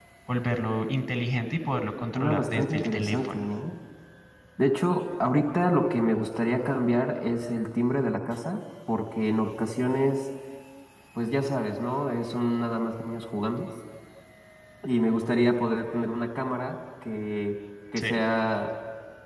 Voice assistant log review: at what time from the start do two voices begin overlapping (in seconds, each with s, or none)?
2.1 s